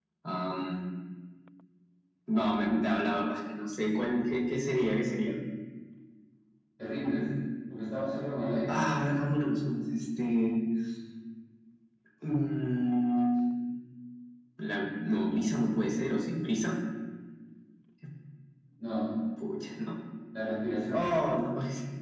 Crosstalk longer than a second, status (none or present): none